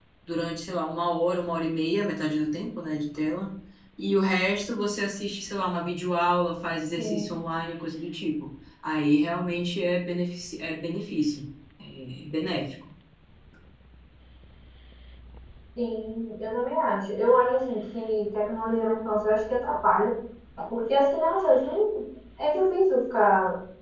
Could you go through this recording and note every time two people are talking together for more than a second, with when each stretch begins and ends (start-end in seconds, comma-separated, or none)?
none